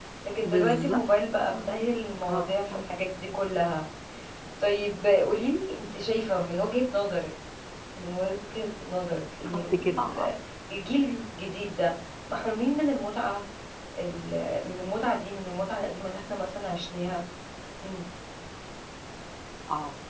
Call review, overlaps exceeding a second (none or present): present